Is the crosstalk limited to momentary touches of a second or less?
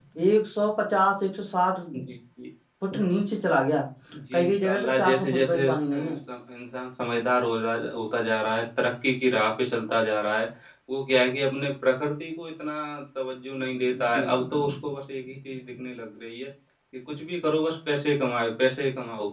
No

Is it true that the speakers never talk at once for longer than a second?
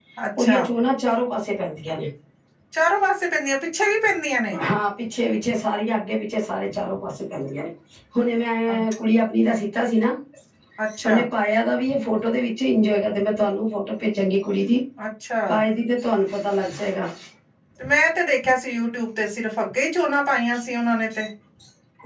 Yes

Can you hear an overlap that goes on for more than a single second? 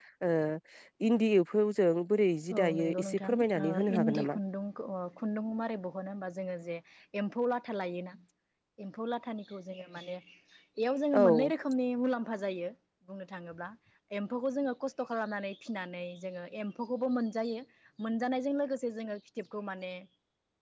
Yes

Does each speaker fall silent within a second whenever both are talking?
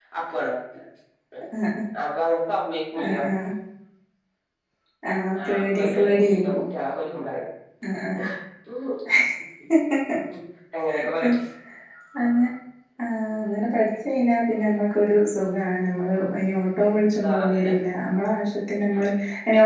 No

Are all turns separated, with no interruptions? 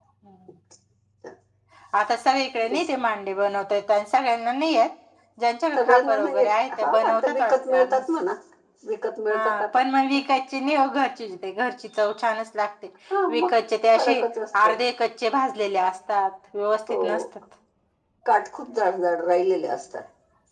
No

